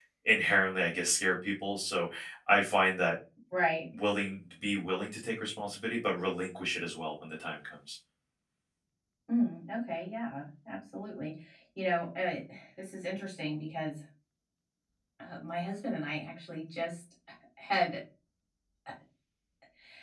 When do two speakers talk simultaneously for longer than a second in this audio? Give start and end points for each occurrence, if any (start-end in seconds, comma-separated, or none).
none